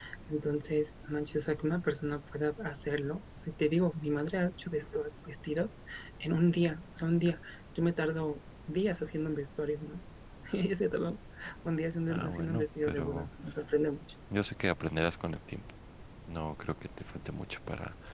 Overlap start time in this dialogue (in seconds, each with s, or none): 12.1 s